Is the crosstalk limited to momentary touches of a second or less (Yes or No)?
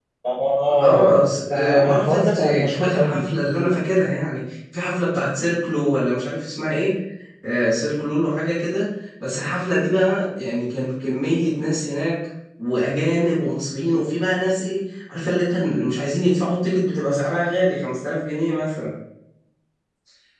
No